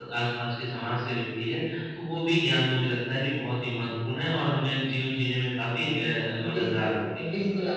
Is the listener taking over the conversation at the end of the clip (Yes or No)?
Yes